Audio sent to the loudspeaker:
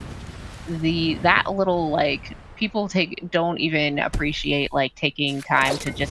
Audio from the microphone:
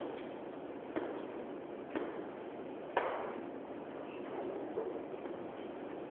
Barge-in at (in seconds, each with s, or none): none